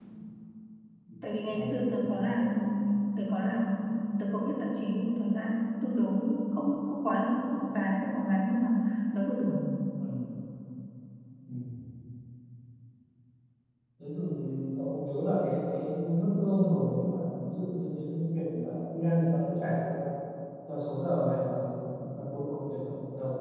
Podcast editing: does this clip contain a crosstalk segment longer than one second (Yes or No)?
Yes